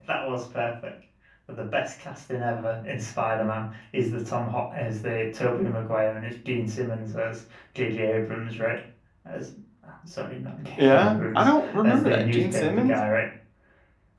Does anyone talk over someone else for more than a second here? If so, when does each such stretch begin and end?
10.8-12.9

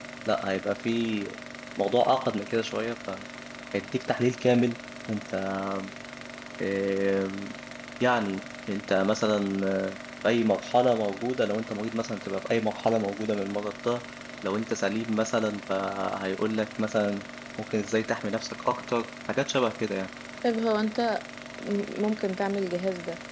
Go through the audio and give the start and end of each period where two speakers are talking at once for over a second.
none

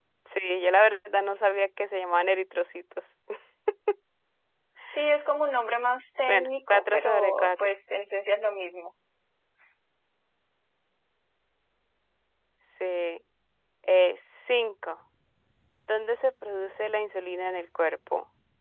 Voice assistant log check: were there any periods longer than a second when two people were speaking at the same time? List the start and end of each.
6.3-7.5

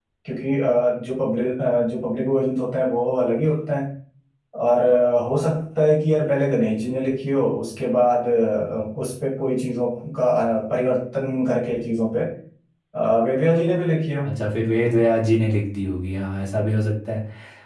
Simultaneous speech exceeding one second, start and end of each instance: none

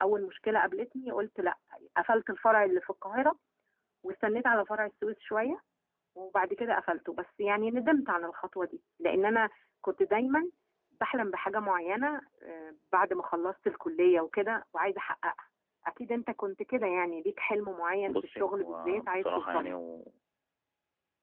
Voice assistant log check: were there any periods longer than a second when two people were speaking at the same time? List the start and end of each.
18.1-19.7

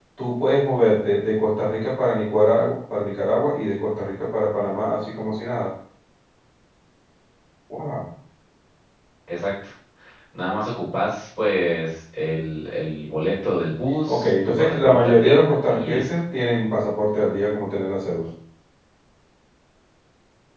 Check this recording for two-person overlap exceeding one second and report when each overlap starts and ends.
14.1-16.1

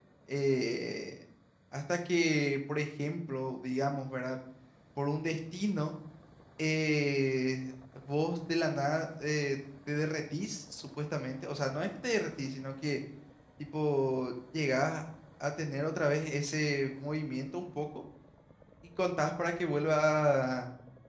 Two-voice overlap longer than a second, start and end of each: none

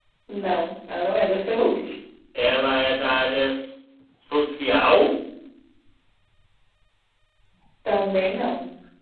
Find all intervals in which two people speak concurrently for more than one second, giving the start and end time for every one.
none

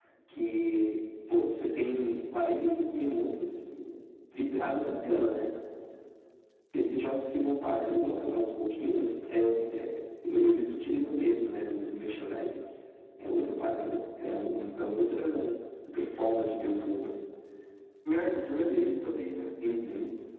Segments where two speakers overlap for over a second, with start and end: none

